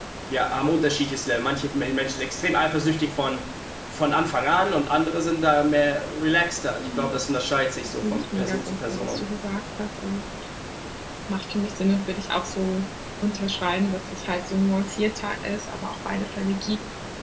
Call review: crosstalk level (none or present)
present